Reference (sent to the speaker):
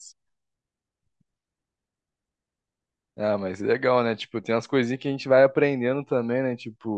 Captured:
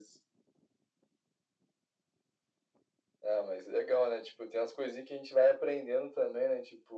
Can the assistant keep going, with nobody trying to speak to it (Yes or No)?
Yes